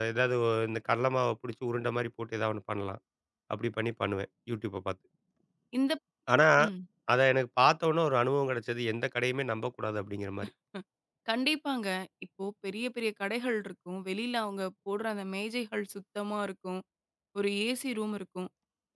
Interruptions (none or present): none